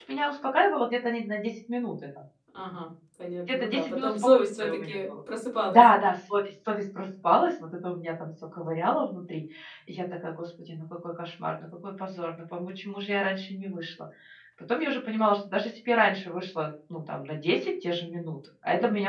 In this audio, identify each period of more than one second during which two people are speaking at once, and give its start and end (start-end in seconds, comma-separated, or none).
3.5-5.1